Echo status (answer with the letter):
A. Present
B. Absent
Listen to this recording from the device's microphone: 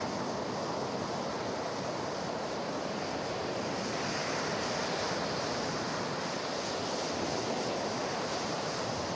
B